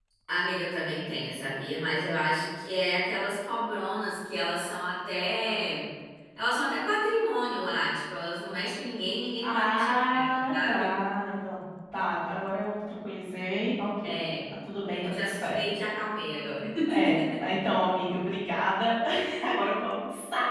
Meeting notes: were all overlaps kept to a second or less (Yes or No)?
No